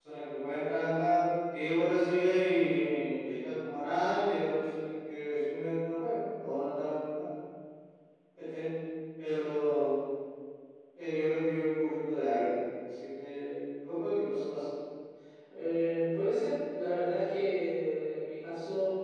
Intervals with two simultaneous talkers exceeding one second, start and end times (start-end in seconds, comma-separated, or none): none